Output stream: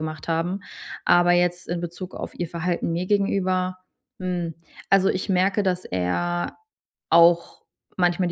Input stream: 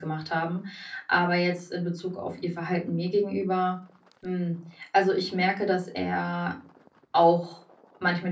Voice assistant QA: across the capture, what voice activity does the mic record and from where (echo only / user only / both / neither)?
echo only